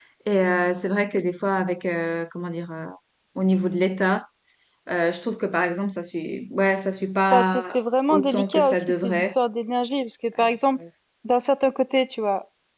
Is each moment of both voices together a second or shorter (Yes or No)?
No